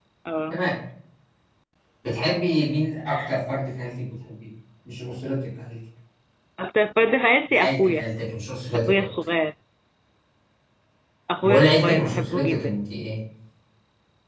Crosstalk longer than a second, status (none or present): present